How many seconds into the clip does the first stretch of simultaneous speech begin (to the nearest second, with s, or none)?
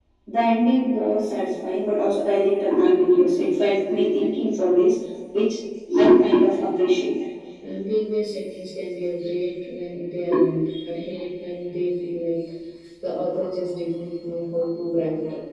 none